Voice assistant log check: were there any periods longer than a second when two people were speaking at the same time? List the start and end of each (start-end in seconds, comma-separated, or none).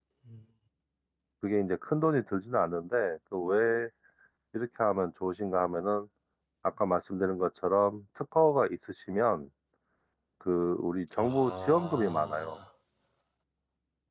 11.2-12.5